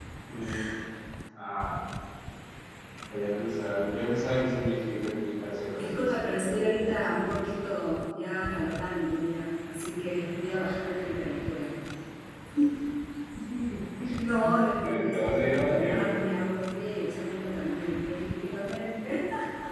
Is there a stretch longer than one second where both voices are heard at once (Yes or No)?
Yes